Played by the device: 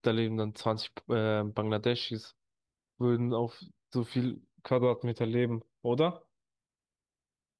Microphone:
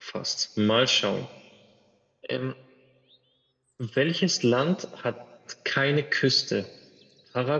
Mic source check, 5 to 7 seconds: user only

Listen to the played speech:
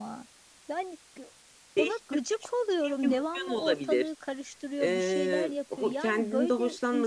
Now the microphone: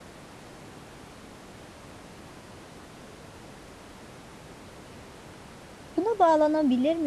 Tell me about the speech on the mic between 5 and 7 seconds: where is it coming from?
user only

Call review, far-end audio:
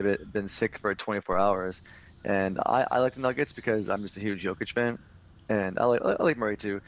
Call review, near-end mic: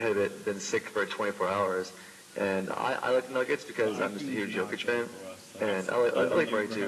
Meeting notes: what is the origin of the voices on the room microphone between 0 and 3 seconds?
echo only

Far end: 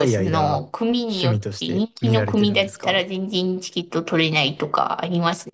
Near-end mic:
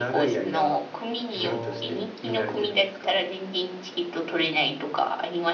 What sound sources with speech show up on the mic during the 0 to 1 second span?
echo only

